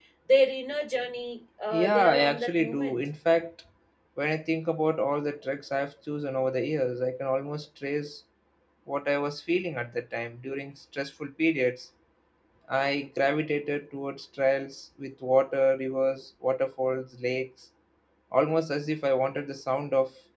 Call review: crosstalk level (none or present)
present